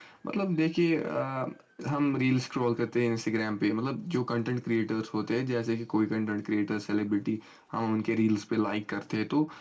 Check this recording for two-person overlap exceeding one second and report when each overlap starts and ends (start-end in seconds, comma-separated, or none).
none